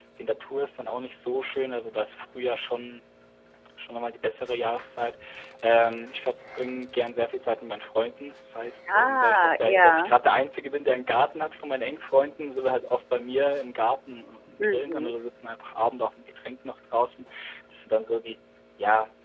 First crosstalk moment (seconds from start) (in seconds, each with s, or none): 8.9 s